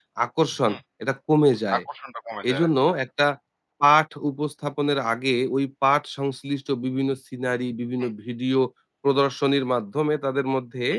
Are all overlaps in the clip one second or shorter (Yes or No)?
Yes